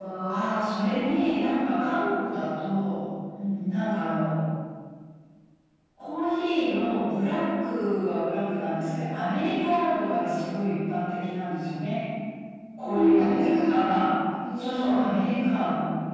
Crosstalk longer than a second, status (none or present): present